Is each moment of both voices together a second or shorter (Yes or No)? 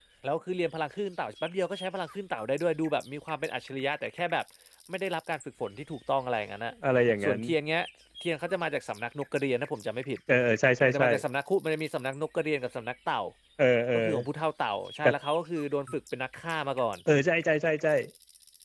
Yes